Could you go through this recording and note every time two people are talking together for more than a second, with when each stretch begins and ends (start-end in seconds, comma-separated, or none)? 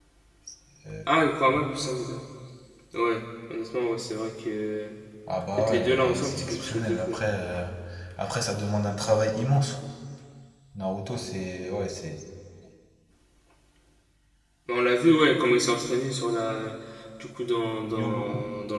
5.6-7.2